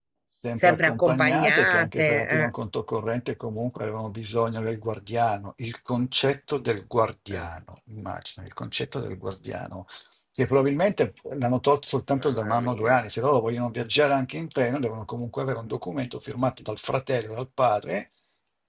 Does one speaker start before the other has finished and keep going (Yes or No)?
Yes